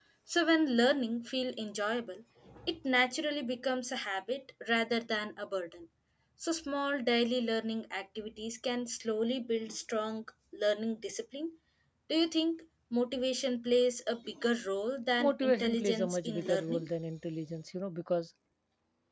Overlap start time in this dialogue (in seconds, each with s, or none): 15.2 s